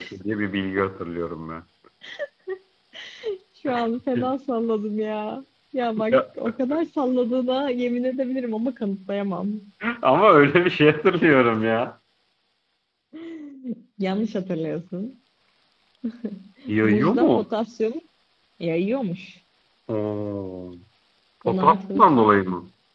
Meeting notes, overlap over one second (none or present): present